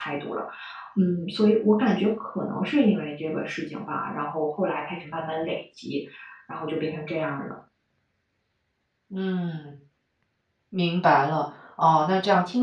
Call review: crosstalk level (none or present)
none